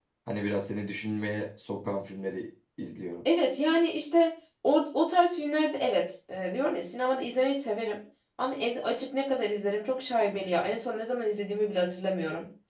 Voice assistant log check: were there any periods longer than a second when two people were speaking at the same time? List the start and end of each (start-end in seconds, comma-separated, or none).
none